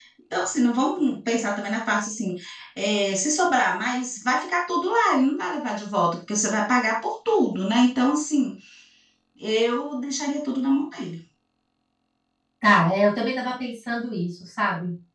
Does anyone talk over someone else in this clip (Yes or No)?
No